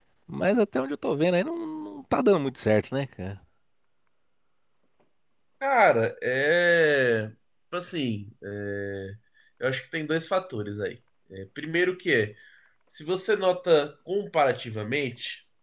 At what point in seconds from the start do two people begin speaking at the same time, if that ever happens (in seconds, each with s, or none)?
none